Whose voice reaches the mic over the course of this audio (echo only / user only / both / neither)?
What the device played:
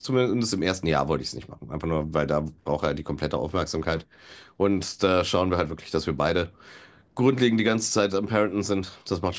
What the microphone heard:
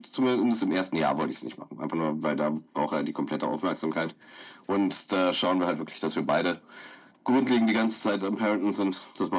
echo only